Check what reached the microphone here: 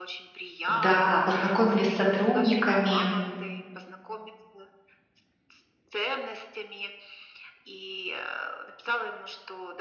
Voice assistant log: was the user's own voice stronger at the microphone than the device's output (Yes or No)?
Yes